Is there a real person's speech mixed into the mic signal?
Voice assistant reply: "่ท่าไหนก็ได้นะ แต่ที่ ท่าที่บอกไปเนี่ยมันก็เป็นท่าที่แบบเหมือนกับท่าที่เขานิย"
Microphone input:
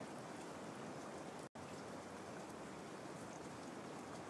No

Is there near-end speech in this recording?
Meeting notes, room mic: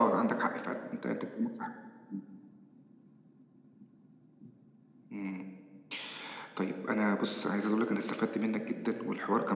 No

